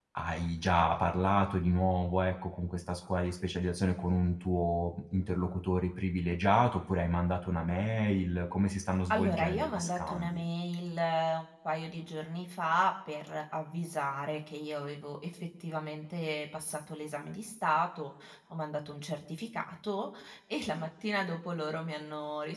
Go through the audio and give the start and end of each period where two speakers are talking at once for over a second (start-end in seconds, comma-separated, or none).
9.1-10.4